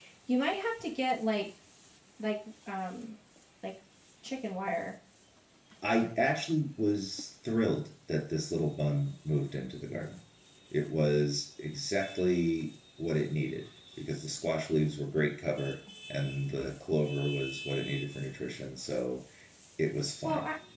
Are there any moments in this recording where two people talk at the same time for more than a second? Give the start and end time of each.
none

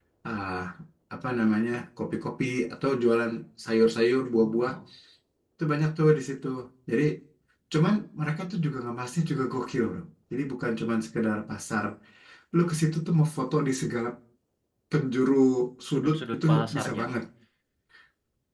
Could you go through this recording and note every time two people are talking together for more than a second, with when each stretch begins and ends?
15.9-17.1

